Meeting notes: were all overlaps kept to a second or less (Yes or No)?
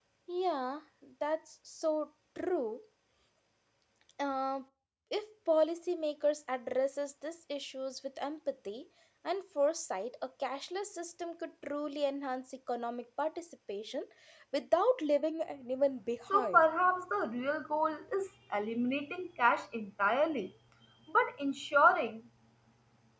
Yes